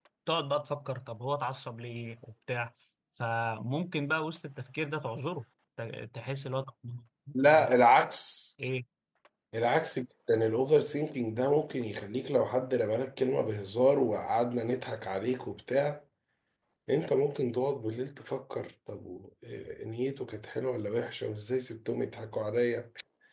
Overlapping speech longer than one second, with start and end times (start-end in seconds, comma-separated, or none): none